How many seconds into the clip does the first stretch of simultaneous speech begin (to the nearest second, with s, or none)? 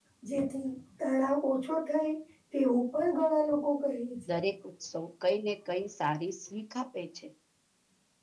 none